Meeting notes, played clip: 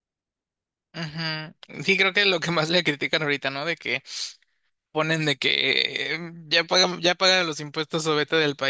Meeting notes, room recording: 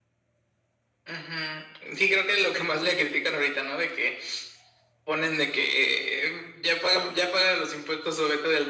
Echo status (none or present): present